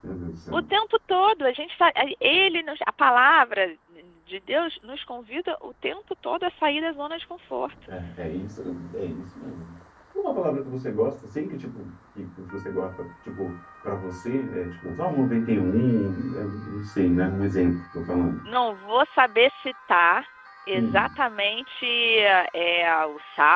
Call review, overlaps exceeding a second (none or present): none